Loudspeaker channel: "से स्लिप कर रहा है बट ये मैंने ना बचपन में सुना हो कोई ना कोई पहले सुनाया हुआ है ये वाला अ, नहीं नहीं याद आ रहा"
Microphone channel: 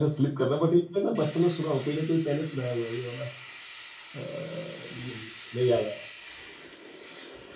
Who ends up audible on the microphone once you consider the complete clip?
echo only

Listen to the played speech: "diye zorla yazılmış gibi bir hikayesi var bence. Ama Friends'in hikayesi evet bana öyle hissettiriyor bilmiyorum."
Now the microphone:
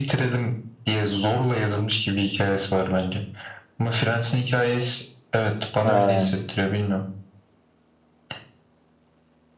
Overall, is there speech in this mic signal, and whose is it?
both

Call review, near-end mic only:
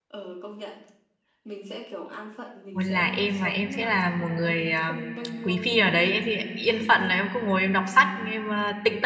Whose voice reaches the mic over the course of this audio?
both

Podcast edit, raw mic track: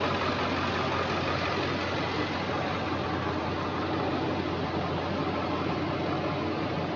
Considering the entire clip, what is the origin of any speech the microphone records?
neither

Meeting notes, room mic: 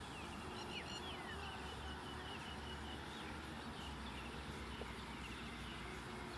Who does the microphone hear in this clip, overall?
neither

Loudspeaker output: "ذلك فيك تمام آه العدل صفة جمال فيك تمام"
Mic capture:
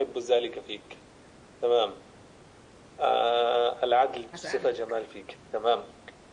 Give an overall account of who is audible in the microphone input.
both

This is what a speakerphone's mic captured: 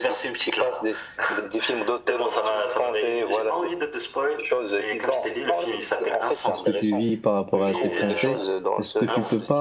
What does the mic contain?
both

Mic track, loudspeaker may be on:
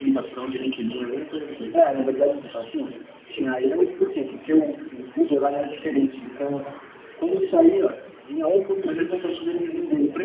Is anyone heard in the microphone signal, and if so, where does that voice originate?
echo only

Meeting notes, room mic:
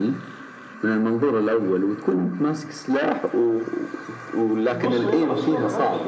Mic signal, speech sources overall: both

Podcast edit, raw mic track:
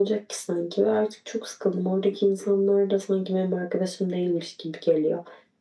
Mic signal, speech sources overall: echo only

